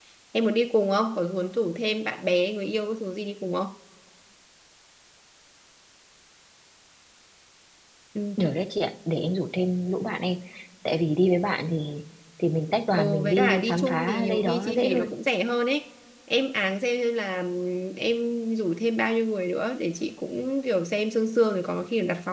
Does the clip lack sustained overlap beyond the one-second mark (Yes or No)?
No